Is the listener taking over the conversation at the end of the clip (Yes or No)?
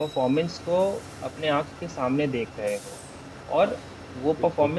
No